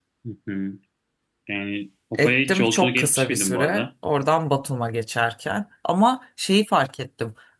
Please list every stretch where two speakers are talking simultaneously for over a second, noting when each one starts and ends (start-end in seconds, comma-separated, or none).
2.2-3.8